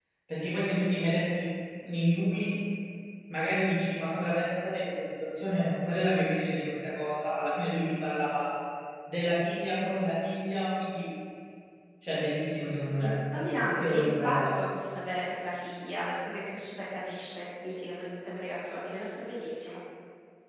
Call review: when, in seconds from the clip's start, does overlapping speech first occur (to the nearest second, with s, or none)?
13 s